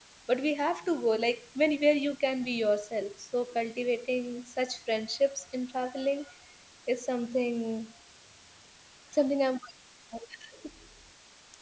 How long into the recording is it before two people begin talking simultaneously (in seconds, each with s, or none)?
none